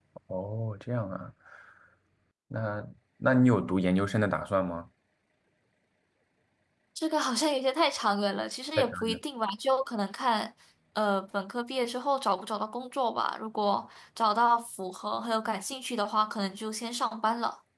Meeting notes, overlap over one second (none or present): none